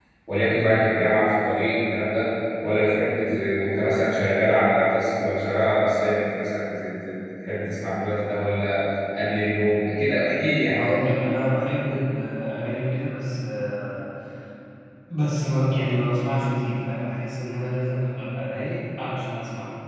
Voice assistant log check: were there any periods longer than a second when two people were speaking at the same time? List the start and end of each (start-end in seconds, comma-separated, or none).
none